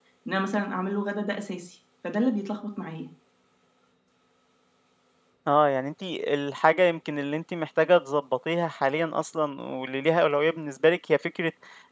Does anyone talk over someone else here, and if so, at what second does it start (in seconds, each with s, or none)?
none